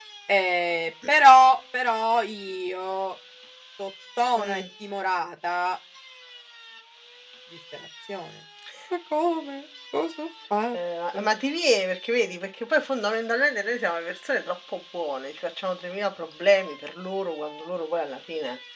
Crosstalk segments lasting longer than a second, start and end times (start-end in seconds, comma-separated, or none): none